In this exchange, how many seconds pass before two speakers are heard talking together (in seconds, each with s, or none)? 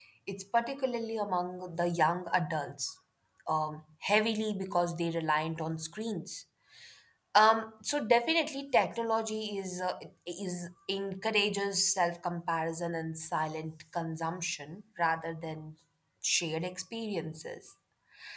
none